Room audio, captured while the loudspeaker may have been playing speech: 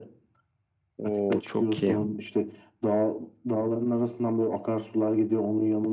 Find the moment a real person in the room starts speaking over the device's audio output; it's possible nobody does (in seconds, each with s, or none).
1.0 s